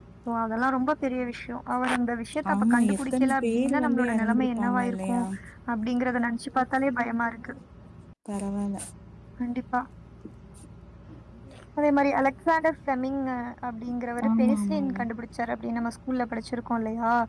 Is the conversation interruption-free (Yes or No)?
No